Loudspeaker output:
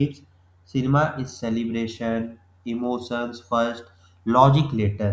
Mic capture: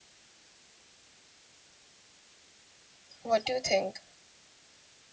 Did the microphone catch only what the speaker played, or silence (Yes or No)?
No